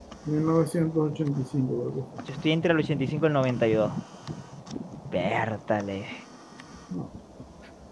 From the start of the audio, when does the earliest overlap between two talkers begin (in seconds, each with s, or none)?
none